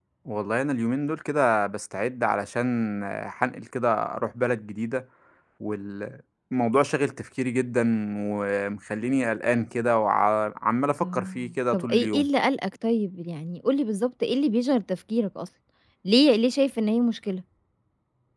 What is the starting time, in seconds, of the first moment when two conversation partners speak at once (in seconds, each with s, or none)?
11.0 s